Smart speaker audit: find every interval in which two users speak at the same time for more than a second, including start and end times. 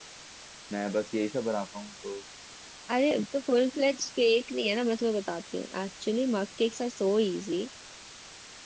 none

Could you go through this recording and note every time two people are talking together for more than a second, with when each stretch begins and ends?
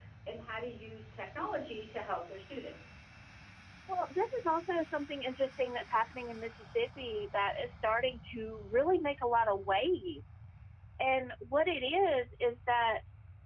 none

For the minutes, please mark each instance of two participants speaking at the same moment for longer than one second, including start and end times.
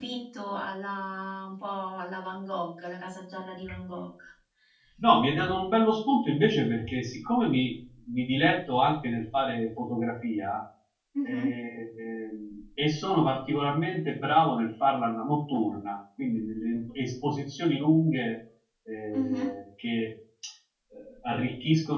none

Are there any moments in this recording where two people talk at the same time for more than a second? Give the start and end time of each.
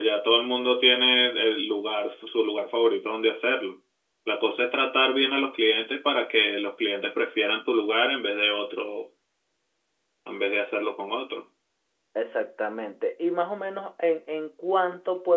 none

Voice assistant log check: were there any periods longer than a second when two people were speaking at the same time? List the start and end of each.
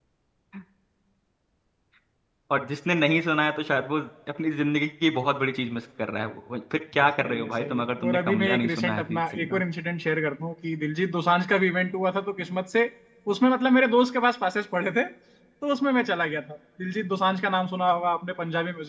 7.2-9.6

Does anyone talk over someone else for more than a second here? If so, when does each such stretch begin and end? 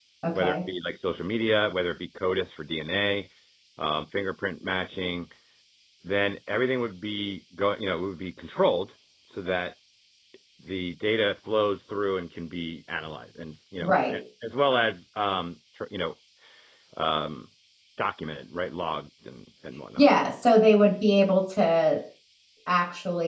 none

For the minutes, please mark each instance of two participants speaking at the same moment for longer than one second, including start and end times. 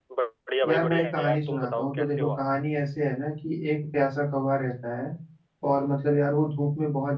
0.6-2.4

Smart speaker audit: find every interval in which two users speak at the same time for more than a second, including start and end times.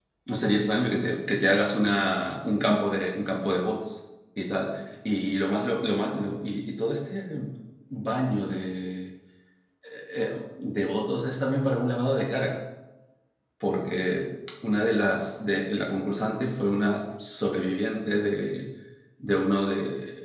none

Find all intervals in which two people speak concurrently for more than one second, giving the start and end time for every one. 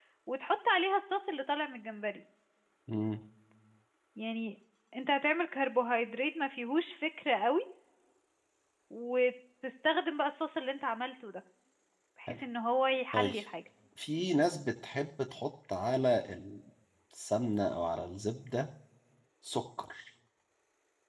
none

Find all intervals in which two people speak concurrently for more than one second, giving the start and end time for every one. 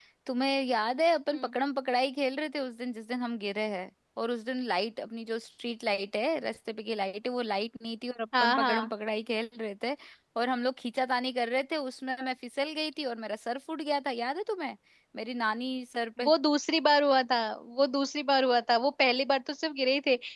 none

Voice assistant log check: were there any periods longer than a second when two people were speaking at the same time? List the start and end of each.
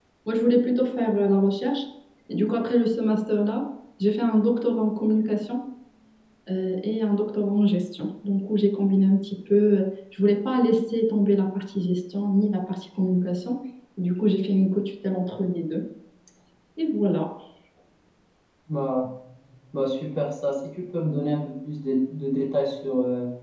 none

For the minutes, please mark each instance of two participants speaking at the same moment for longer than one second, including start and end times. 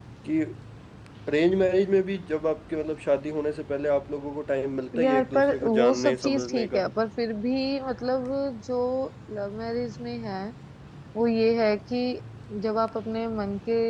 5.0-6.8

